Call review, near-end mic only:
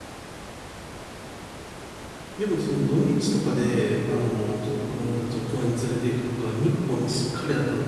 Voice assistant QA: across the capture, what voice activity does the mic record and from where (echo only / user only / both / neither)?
user only